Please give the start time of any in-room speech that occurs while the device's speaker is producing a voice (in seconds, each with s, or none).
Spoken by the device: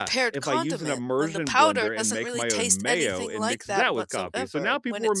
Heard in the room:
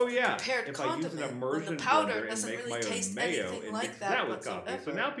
none